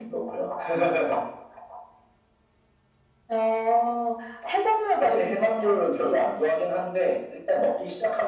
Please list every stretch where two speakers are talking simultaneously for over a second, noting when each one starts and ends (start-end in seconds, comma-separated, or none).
5.0-6.2